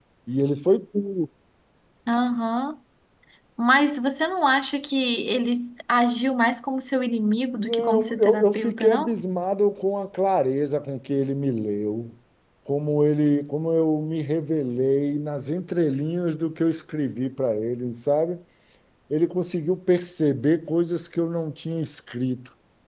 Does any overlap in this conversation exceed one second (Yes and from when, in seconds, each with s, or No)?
Yes, from 7.6 s